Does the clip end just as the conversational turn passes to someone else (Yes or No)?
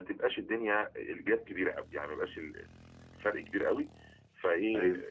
No